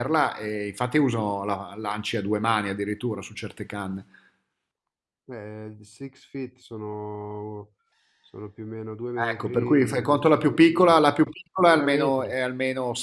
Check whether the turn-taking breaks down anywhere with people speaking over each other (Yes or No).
Yes